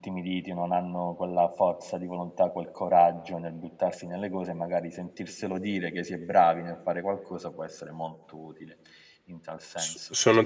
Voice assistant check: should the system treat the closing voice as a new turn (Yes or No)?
Yes